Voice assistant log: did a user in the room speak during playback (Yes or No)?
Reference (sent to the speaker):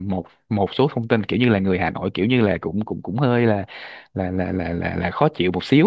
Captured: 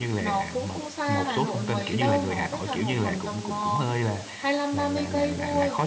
Yes